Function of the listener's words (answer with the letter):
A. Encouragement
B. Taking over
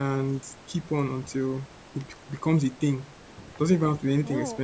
A